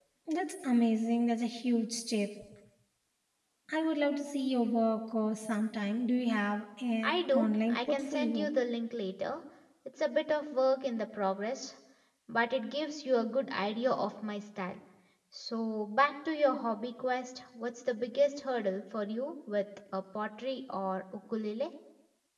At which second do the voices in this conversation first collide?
7.0 s

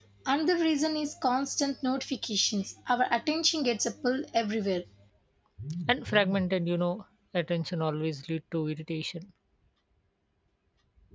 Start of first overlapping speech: none

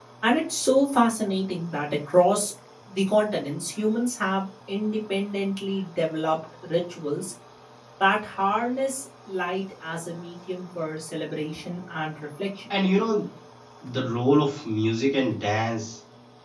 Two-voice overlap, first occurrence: none

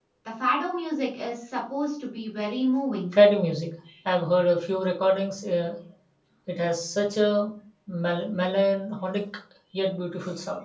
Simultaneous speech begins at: none

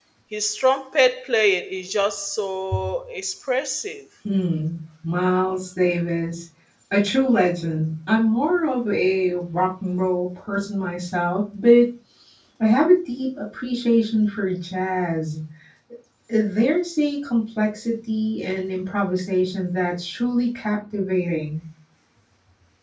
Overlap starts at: none

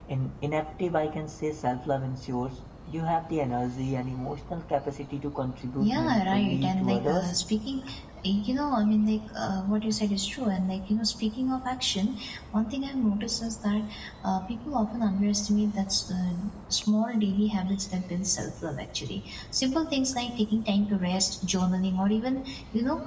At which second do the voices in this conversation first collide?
5.8 s

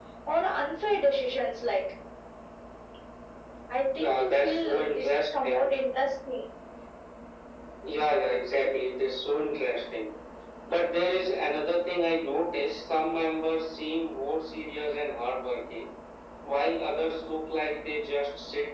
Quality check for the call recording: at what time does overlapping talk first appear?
4.0 s

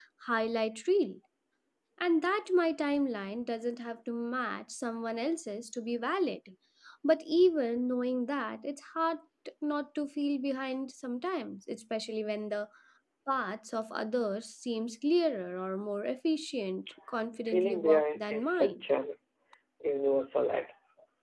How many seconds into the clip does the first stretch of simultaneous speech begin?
17.5 s

